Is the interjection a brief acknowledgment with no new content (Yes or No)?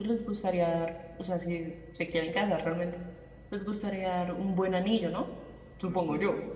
No